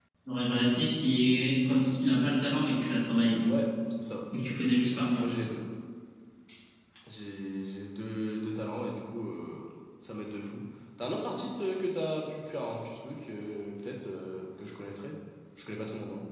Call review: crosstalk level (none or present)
none